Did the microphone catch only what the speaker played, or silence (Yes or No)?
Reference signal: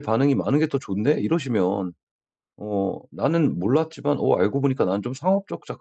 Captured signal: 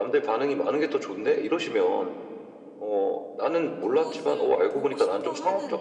No